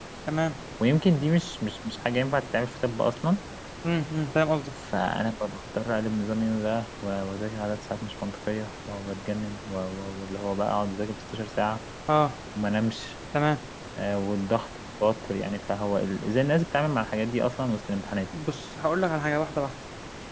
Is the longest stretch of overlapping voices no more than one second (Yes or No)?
Yes